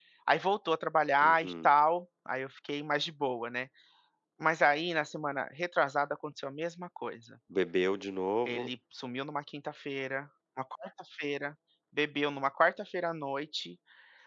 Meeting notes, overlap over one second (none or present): none